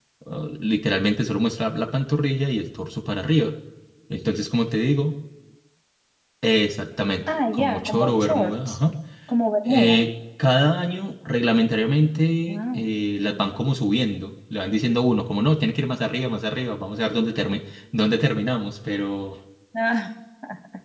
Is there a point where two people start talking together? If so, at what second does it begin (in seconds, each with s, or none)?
7.5 s